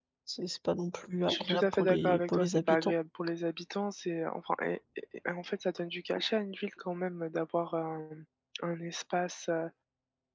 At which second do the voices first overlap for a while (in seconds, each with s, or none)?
1.3 s